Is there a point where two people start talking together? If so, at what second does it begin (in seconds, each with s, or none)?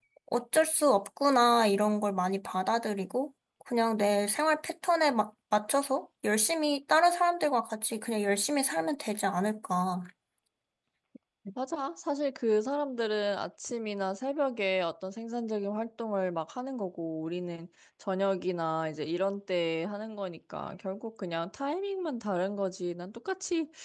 none